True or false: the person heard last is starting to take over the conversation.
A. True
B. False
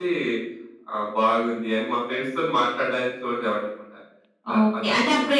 A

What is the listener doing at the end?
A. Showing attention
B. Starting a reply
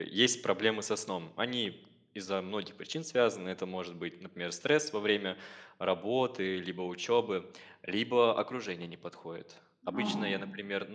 A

